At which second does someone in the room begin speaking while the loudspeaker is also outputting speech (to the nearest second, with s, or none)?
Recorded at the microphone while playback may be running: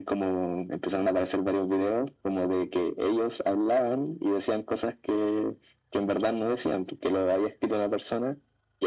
none